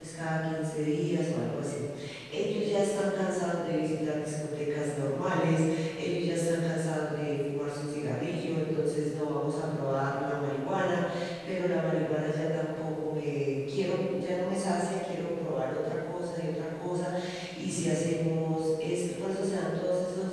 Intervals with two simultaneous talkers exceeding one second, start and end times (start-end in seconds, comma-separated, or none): none